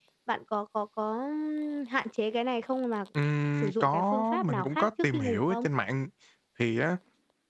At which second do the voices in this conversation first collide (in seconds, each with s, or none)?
3.6 s